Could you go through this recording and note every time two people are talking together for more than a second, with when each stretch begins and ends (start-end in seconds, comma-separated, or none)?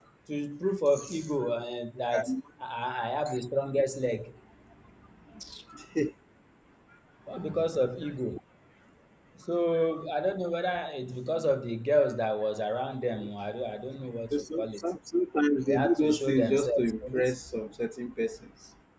15.7-17.3